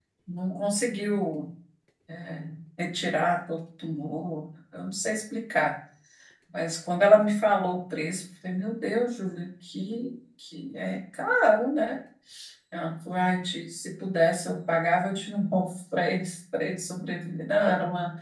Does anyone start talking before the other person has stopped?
No

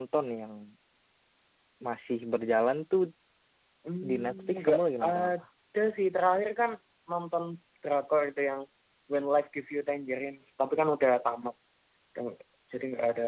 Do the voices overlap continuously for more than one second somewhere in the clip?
Yes, from 4.1 s

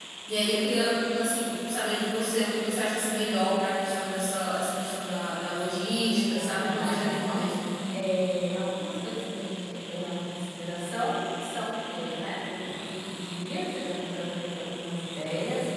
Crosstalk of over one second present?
Yes, from 6.1 s

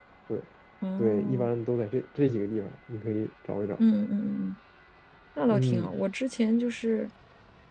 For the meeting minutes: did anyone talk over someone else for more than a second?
No

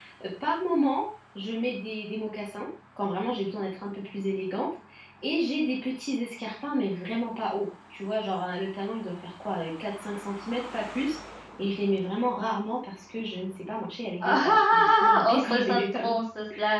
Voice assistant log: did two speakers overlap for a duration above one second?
Yes, from 14.2 s

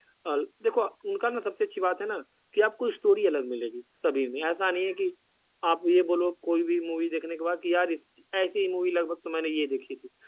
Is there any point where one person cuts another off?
No

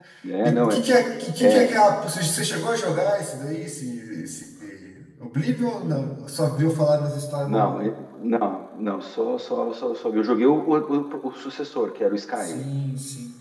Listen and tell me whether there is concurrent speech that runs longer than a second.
No

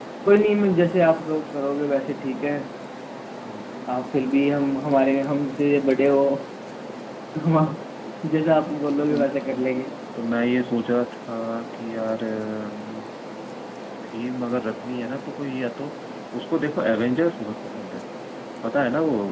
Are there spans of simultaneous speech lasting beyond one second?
No

